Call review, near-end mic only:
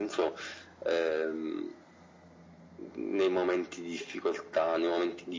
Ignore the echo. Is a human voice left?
No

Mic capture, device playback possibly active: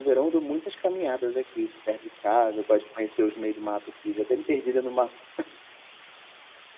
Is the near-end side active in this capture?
Yes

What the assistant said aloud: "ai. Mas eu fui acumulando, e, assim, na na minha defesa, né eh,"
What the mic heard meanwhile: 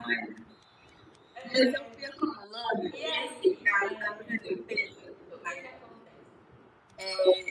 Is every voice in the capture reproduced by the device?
No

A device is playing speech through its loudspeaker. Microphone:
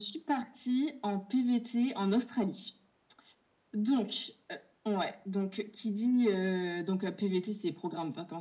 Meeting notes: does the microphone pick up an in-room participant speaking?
No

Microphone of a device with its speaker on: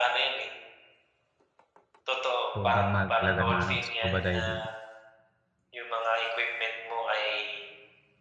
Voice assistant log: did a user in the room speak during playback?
Yes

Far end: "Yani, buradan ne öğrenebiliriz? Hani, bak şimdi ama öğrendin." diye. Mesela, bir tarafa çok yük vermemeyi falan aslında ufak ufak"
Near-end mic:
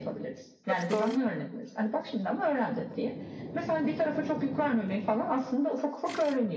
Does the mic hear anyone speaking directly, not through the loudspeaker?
Yes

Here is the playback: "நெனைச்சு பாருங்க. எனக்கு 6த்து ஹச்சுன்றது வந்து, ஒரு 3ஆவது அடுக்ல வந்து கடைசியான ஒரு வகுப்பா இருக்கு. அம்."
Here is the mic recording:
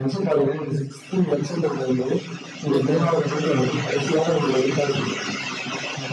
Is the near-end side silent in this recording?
No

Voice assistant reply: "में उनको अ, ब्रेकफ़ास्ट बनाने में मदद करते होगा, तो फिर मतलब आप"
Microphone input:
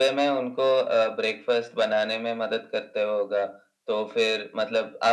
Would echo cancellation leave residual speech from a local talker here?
No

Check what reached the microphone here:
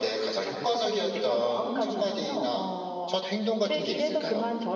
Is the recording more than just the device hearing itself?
No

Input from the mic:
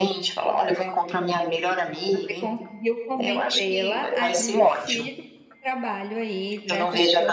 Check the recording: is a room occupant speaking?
Yes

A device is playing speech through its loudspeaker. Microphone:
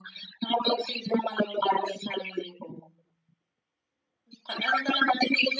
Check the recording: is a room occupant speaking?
No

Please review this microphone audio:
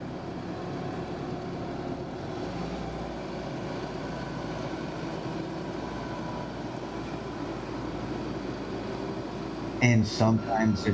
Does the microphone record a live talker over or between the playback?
Yes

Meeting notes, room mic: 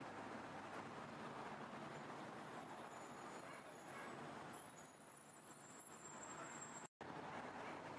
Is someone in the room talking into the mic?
No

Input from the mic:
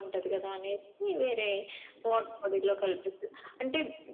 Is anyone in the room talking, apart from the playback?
Yes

